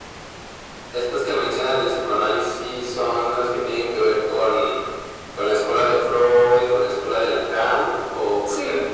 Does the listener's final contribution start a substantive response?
Yes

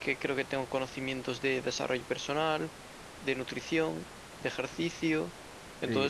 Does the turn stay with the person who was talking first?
Yes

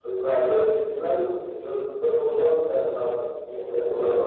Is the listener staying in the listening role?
No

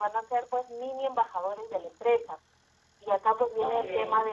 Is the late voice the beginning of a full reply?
No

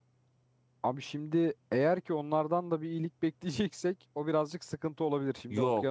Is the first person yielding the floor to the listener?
Yes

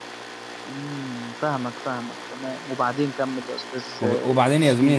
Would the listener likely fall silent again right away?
No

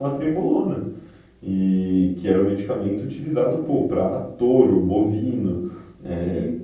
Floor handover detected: No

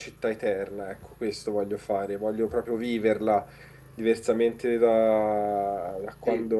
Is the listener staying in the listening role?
Yes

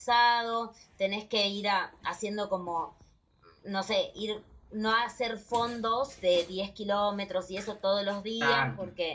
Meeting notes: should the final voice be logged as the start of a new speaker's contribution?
No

